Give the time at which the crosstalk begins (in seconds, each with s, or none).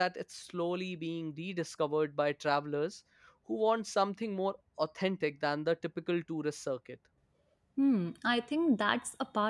none